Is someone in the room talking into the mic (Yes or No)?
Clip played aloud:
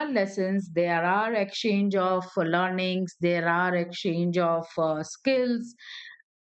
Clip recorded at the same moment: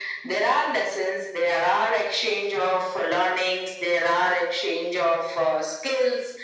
No